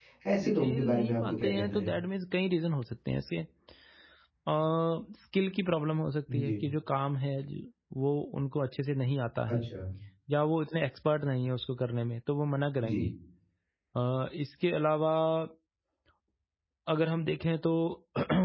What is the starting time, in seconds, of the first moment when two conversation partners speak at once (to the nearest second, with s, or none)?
1 s